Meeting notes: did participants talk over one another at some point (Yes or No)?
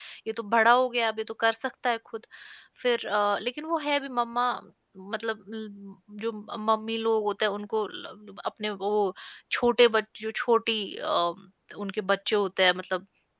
No